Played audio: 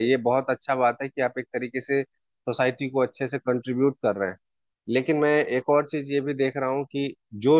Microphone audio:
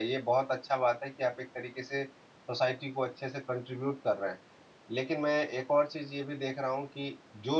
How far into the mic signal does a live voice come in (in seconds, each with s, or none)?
none